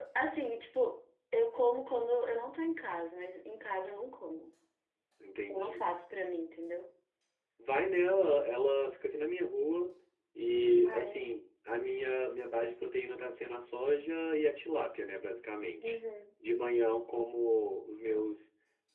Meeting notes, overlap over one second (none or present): none